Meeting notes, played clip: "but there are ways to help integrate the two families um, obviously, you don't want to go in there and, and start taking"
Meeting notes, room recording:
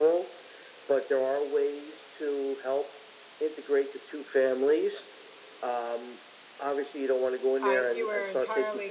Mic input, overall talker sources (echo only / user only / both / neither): both